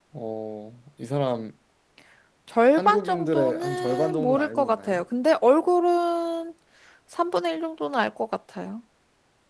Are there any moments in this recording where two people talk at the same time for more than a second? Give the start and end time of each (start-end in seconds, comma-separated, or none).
2.8-5.0